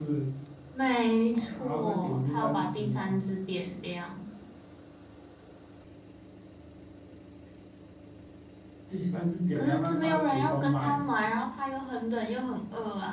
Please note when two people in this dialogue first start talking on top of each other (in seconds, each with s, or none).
1.3 s